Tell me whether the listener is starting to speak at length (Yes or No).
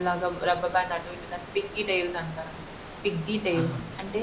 No